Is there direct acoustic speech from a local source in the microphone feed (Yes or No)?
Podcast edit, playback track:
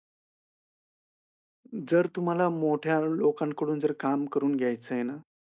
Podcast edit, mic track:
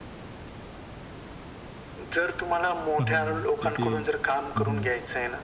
Yes